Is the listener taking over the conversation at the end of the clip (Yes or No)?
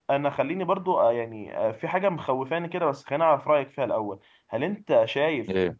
No